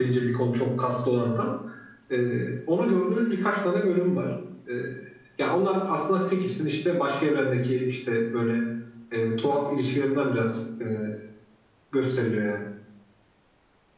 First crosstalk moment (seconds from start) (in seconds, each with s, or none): none